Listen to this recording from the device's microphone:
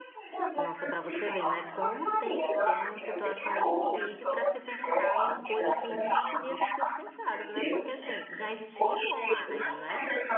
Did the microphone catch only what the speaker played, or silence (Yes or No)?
No